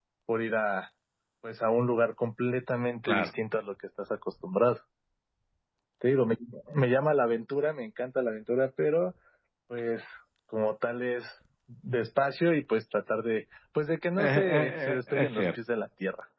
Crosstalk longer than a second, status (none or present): present